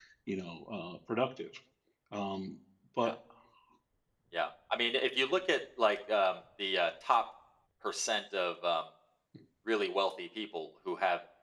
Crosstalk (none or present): none